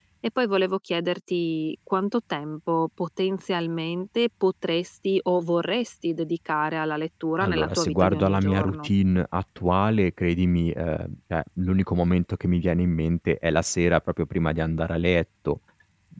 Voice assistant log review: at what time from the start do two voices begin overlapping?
7.4 s

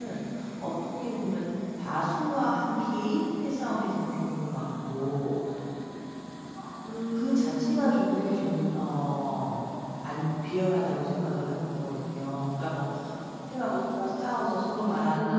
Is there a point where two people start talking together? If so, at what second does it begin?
7.1 s

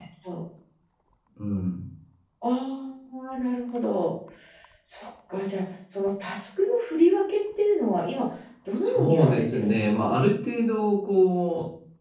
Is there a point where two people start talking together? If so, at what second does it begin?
8.8 s

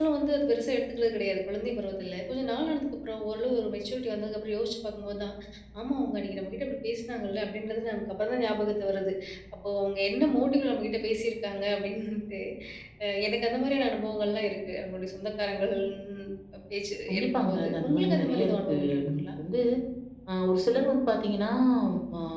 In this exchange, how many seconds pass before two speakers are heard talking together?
17.1 s

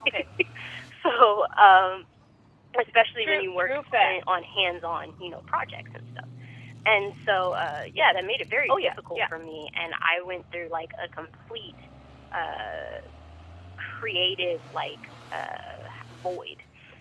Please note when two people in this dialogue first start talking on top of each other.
3.2 s

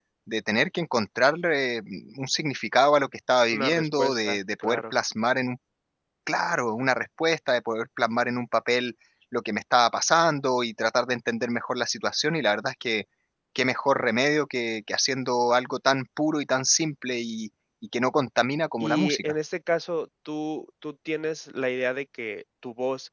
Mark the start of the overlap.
3.5 s

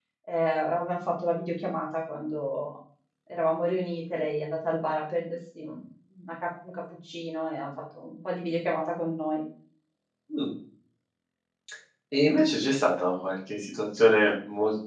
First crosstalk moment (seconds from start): none

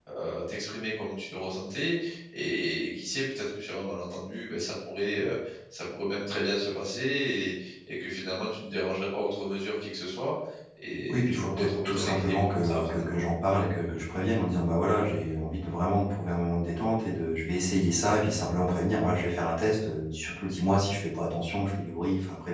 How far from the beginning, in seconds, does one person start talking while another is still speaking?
11.1 s

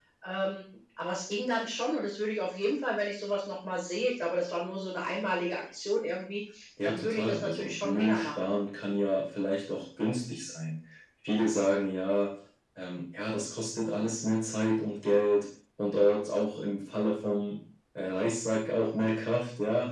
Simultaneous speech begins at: 6.8 s

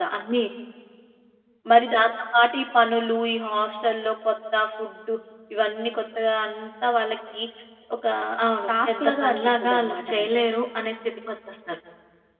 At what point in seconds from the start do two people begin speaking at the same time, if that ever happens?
8.7 s

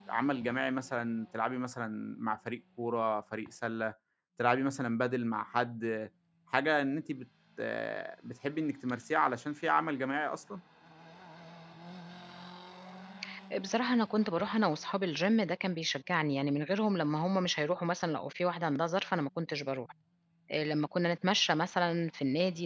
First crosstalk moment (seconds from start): none

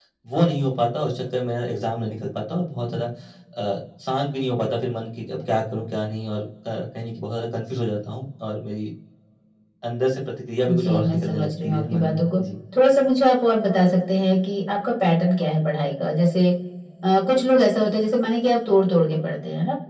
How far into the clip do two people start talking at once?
10.7 s

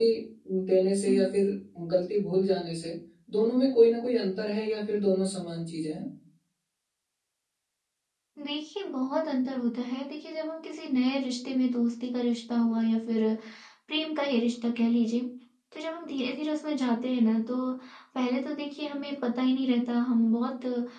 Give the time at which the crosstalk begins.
none

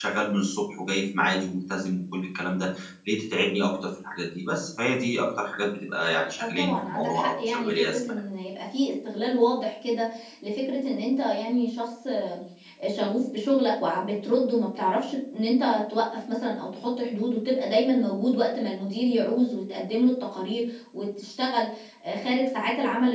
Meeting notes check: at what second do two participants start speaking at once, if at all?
6.3 s

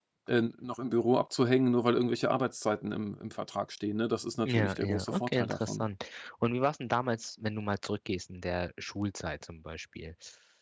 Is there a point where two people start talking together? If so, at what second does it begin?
4.5 s

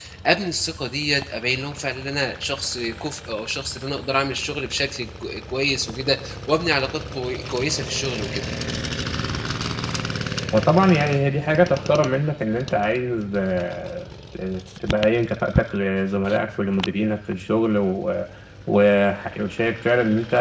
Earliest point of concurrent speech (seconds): none

